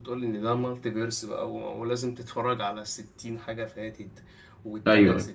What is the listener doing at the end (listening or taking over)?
listening